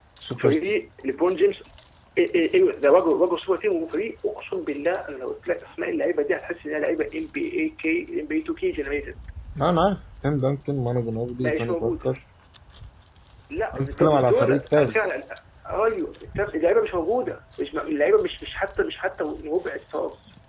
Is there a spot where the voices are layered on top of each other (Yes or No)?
Yes